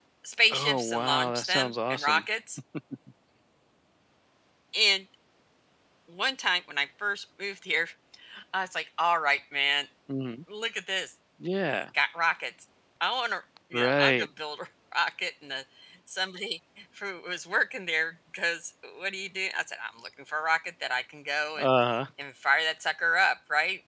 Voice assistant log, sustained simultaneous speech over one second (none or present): present